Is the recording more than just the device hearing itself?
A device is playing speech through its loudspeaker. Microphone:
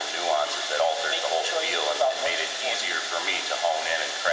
No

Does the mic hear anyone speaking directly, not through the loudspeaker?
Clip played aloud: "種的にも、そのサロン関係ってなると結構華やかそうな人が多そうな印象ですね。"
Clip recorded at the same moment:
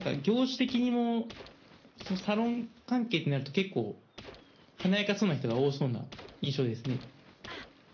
No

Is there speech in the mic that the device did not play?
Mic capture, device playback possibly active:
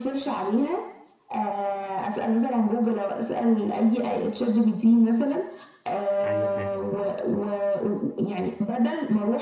Yes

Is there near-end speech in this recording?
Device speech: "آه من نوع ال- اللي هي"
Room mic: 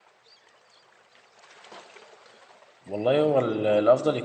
Yes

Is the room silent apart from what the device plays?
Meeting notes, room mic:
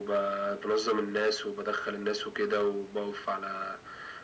Yes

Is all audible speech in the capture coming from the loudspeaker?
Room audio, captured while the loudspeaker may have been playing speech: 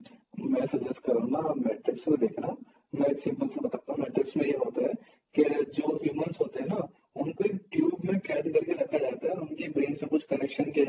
Yes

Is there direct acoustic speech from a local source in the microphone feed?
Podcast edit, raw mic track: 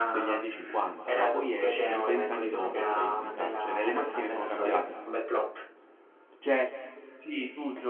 Yes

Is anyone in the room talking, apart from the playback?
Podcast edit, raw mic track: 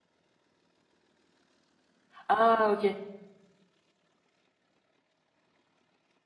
Yes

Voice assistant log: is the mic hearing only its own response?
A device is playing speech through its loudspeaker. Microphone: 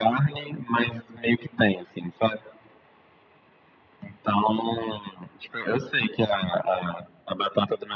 Yes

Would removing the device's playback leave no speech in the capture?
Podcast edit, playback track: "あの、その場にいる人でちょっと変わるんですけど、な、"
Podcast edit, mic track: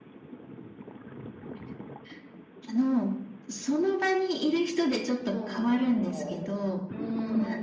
No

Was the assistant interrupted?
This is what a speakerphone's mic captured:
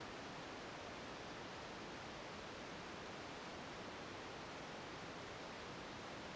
No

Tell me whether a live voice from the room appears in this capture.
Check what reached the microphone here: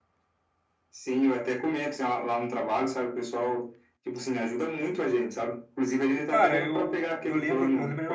Yes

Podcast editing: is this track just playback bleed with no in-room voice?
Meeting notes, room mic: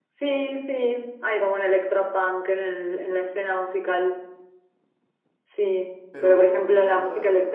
No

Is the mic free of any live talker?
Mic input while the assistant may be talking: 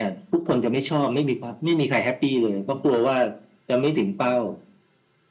Yes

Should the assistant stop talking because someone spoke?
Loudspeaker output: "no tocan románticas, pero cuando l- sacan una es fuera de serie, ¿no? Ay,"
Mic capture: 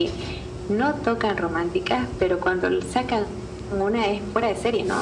No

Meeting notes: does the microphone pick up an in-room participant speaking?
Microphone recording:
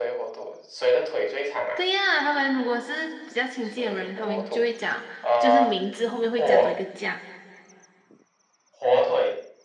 Yes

